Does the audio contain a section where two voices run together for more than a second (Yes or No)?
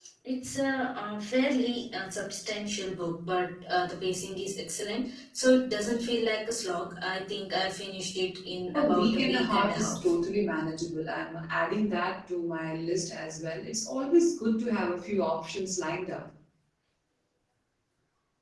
Yes